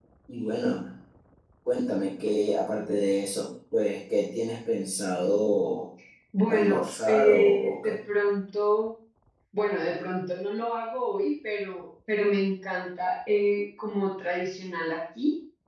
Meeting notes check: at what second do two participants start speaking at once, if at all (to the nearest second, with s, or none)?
6 s